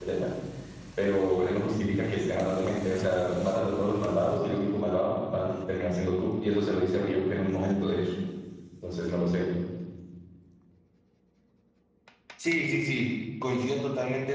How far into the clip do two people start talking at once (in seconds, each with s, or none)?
none